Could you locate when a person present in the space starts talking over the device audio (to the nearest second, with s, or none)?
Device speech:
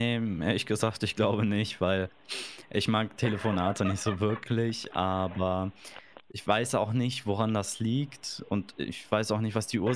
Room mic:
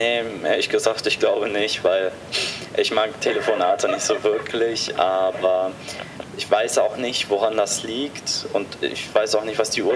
none